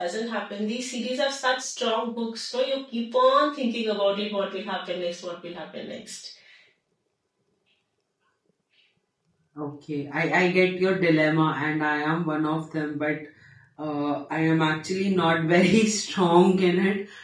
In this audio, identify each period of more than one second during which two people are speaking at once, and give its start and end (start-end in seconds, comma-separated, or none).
none